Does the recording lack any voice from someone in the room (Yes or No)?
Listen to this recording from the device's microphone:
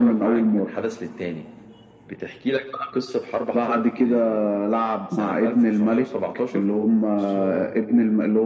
No